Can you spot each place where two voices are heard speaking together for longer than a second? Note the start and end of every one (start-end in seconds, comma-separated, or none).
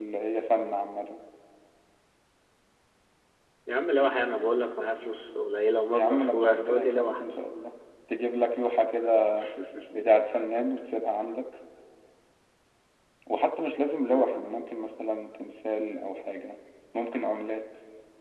5.9-7.2